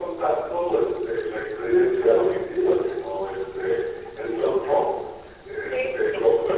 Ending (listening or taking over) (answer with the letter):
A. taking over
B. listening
B